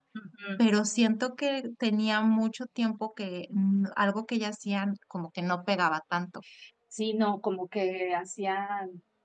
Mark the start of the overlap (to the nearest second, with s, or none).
none